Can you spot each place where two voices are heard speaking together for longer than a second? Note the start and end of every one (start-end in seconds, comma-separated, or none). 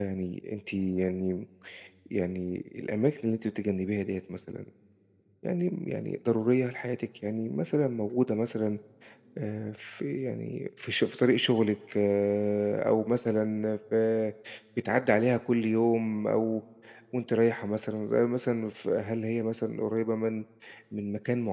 none